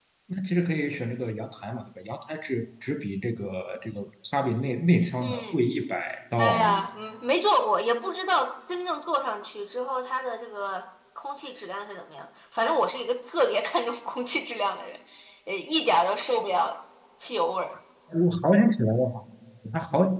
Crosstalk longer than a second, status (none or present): none